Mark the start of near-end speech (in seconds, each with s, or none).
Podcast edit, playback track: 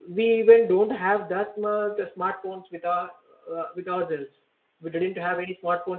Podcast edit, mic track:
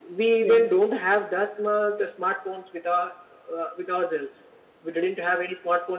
0.4 s